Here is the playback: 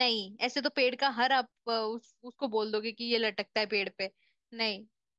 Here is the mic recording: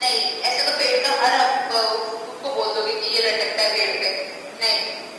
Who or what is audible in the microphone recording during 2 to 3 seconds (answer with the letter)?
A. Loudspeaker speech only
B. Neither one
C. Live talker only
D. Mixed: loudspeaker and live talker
A